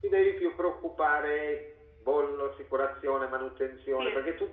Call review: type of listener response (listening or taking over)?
listening